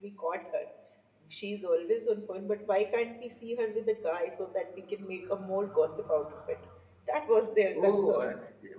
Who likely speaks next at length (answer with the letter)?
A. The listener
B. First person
A